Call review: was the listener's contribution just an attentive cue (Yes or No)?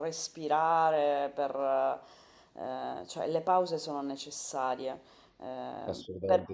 Yes